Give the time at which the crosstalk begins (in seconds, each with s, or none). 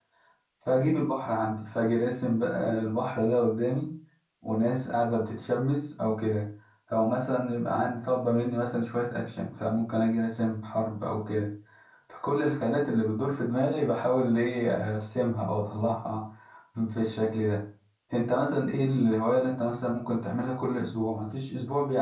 none